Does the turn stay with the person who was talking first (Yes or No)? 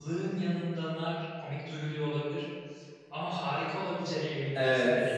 No